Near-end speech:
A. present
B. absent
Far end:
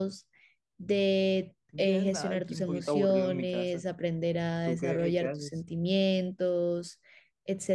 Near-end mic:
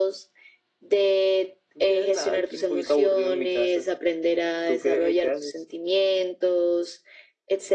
B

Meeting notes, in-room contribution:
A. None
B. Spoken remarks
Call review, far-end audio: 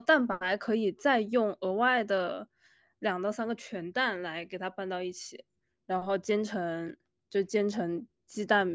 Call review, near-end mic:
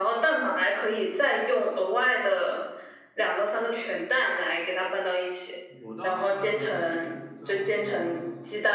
B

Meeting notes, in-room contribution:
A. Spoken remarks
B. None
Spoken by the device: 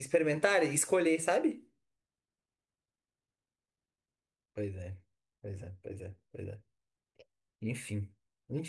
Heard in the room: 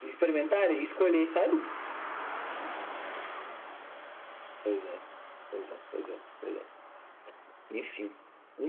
B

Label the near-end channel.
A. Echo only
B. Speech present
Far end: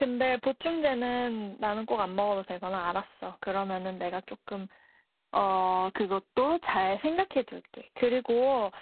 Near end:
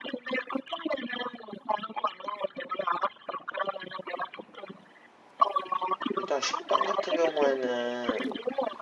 B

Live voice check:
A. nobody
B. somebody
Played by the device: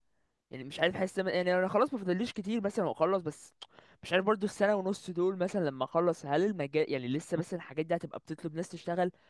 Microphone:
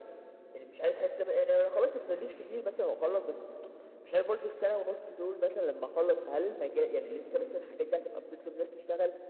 A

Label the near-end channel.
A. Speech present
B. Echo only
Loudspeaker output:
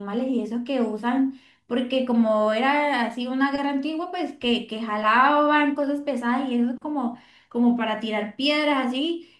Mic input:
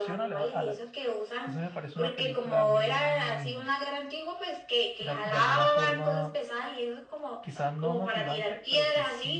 A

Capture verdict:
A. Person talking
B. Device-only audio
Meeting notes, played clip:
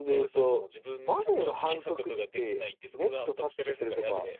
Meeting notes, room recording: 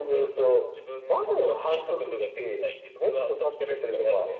B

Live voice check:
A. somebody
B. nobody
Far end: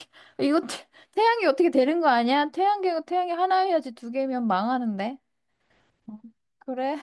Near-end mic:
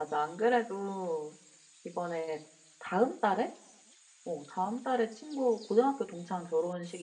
A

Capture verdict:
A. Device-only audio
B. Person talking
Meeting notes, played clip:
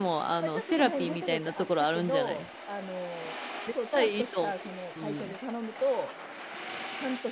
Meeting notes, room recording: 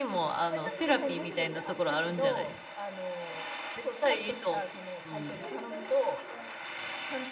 B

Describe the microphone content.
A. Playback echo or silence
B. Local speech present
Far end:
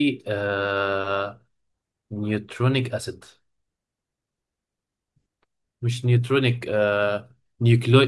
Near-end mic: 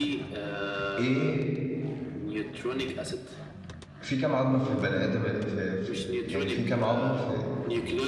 B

